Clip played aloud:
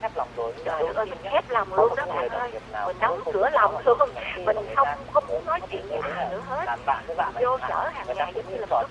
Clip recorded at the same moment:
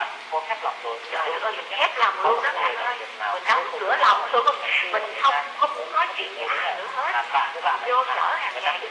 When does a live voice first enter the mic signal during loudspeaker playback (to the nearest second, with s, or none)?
none